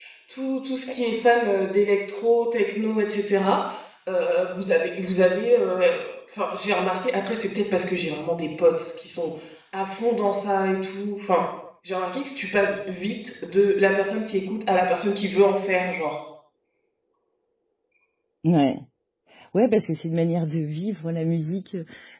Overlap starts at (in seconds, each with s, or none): none